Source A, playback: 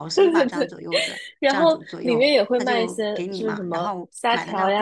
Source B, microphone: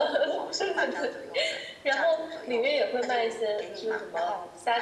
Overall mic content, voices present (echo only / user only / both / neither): echo only